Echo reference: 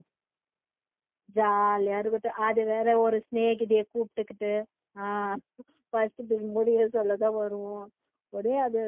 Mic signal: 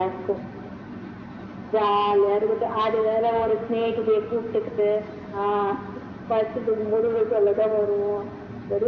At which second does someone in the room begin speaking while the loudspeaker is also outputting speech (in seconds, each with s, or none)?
none